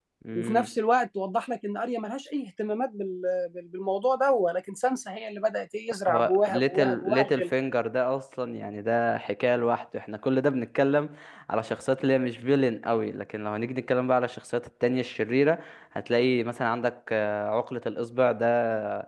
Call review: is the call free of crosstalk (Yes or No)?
No